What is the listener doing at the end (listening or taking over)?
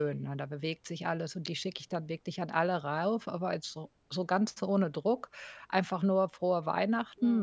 listening